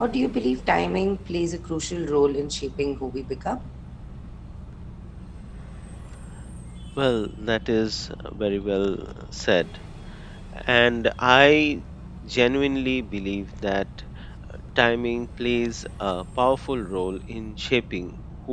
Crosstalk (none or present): none